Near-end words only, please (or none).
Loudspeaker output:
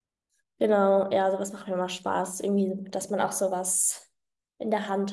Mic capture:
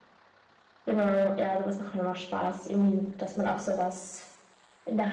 none